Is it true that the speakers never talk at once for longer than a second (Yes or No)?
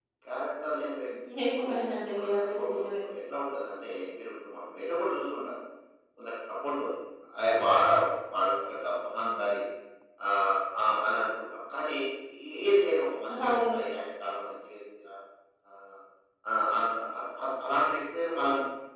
No